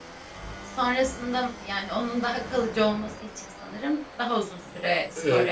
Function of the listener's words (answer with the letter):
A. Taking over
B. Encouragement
A